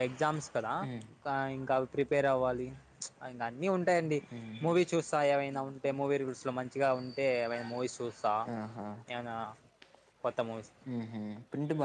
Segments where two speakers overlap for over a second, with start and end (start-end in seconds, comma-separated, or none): none